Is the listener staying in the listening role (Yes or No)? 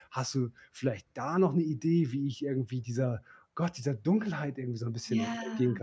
No